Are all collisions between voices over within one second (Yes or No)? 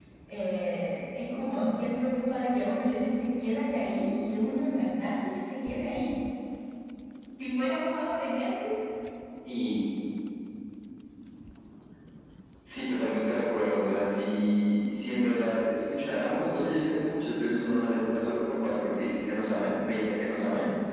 Yes